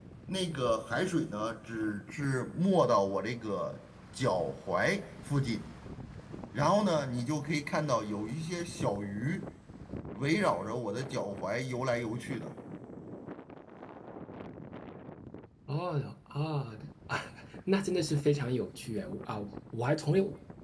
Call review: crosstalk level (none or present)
none